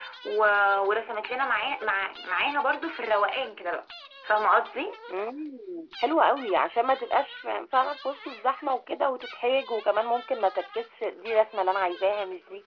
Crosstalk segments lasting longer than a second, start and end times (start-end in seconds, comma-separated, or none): none